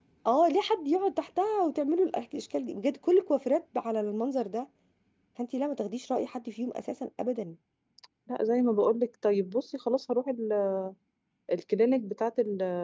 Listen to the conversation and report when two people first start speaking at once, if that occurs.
none

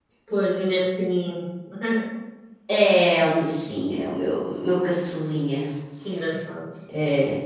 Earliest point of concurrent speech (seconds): none

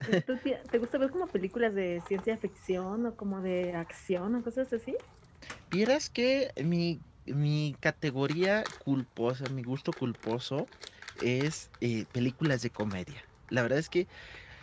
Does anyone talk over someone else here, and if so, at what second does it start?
none

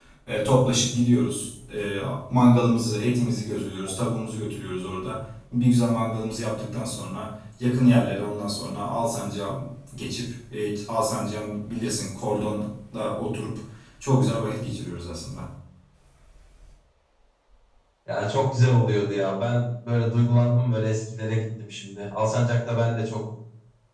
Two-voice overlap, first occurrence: none

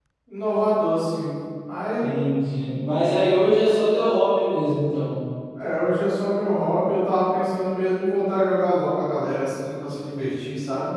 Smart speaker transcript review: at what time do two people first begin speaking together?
none

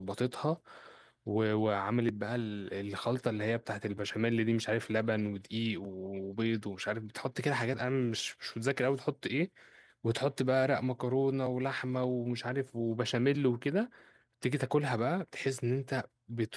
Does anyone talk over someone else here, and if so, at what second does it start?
none

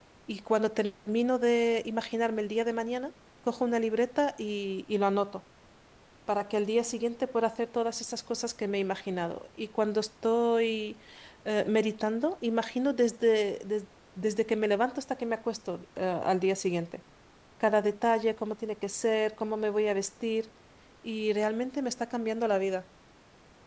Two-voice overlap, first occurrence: none

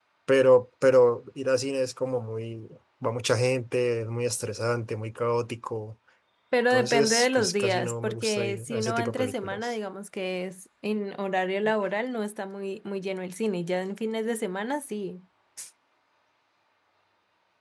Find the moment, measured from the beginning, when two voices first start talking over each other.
6.7 s

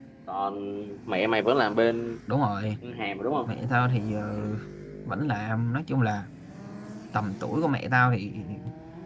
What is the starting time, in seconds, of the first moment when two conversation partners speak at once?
none

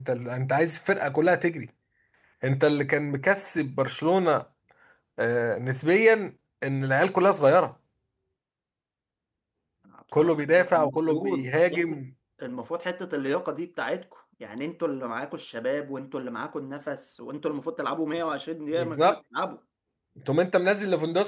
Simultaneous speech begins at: 10.2 s

